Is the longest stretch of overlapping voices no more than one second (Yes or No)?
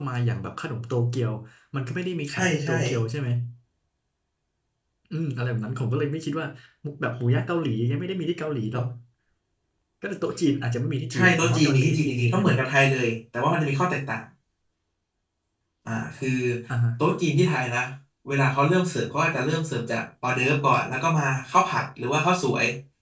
No